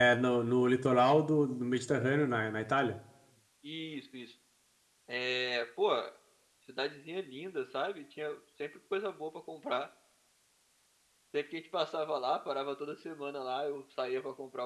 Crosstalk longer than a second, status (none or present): none